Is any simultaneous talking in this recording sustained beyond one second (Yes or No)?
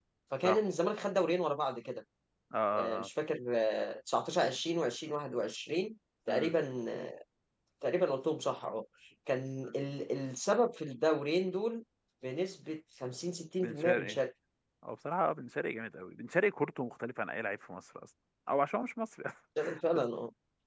No